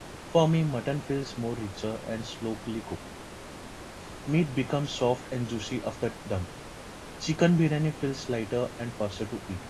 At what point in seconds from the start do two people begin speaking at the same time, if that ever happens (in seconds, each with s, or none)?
none